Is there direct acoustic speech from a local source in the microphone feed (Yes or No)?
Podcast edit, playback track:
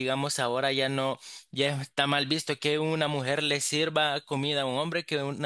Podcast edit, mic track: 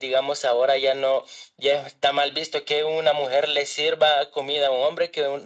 No